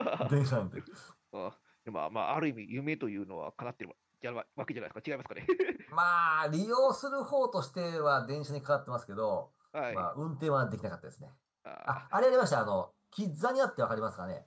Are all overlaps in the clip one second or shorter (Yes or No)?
Yes